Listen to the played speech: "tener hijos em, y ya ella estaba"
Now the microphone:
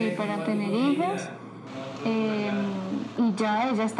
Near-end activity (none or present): present